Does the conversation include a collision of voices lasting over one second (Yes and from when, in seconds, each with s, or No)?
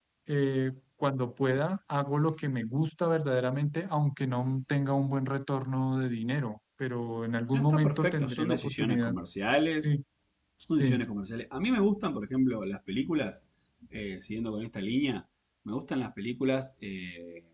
Yes, from 7.5 s